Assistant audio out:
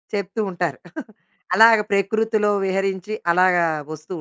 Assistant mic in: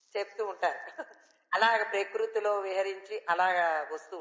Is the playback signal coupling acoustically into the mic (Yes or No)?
Yes